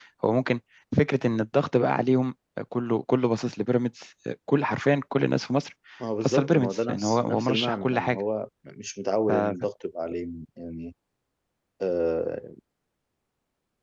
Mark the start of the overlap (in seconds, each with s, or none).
6.2 s